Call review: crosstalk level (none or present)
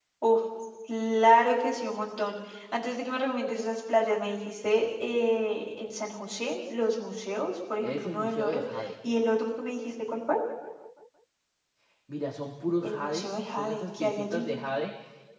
present